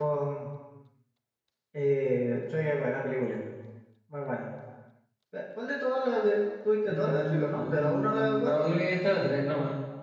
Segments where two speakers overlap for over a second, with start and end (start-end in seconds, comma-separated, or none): 6.8-8.6